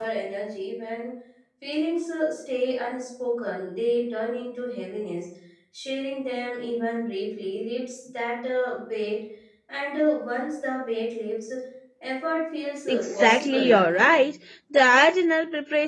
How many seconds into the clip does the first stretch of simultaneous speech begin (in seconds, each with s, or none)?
12.8 s